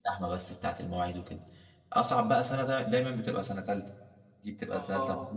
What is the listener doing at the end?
listening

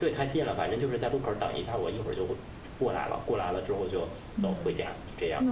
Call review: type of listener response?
taking over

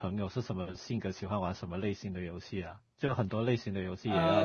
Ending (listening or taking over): taking over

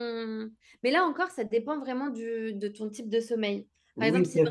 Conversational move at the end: taking over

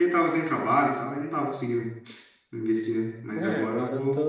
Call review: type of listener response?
taking over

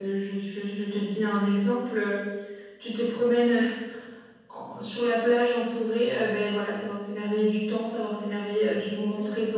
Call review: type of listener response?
taking over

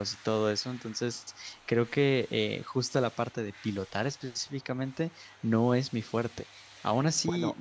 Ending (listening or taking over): listening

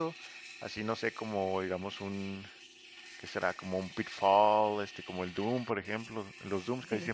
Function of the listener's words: listening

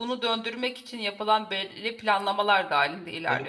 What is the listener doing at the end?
taking over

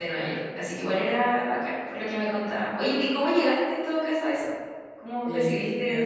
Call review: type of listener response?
taking over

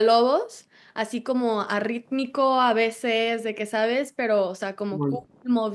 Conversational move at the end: listening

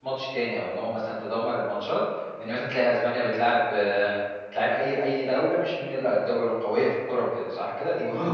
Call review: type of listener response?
taking over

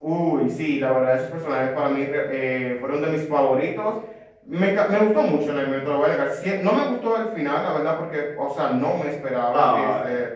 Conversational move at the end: listening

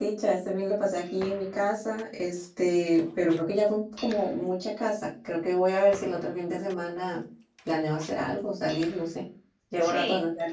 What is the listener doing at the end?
taking over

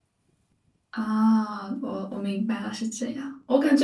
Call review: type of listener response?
listening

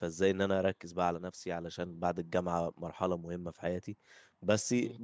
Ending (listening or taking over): listening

